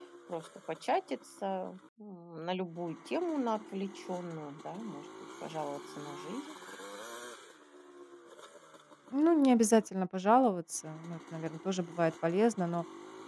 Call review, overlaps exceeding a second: none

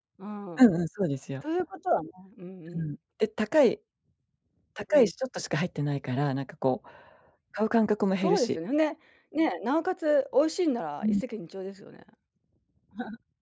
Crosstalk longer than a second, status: none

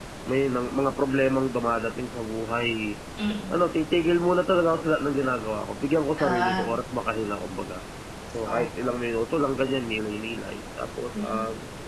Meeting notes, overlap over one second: none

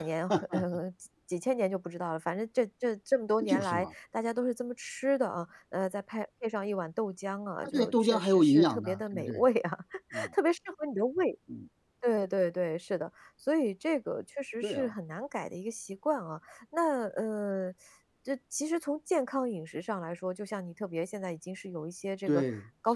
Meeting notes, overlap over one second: present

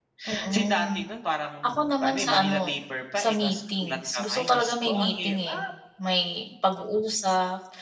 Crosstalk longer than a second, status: present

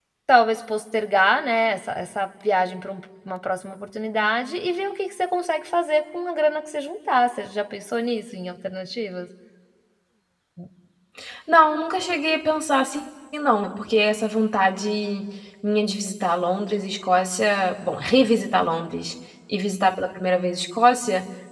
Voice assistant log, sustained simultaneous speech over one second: none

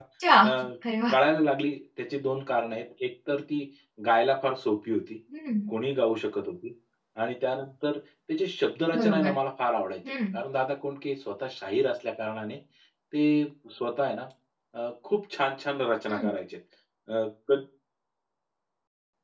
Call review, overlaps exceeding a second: none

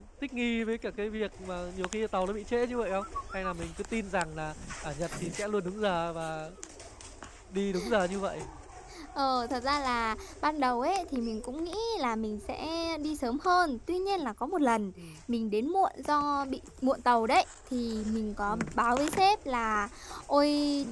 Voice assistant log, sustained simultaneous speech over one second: none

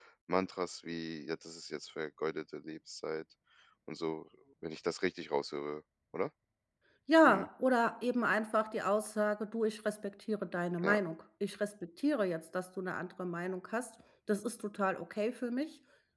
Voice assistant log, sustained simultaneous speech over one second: none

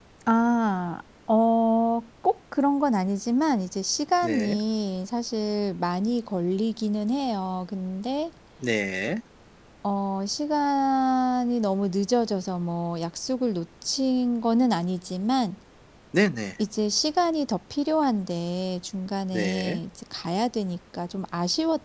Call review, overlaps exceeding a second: none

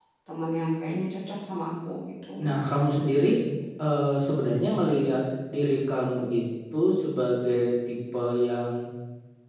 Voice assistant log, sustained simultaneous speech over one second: none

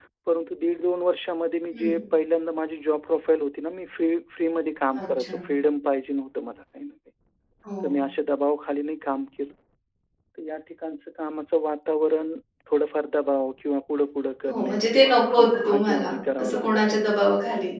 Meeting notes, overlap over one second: present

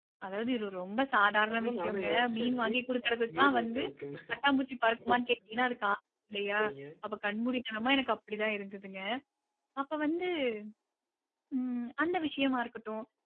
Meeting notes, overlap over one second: present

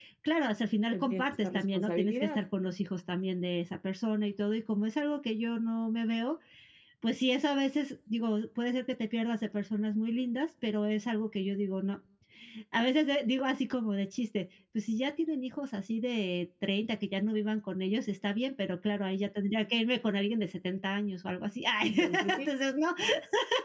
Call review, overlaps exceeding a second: present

